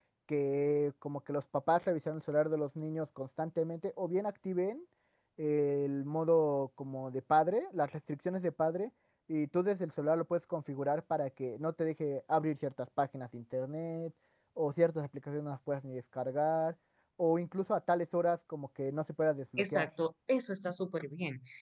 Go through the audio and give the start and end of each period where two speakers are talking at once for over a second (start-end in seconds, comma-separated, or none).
none